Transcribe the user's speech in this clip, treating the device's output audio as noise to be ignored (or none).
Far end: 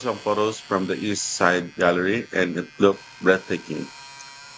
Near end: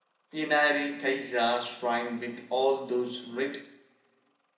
Inari Taisha shrine with all those red